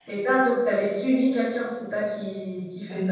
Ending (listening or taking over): taking over